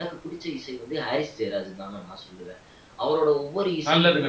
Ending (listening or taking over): taking over